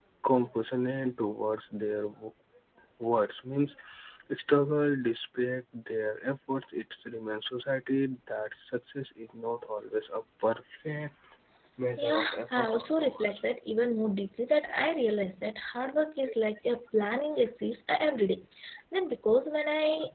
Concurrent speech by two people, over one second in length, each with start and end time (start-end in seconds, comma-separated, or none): 12.0-13.3